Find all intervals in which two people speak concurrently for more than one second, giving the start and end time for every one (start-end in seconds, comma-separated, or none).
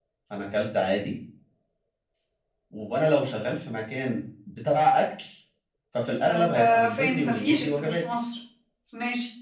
6.2-8.0